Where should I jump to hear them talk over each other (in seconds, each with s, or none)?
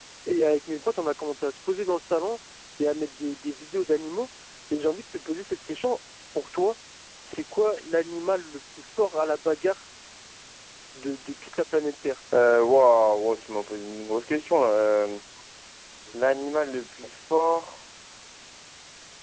none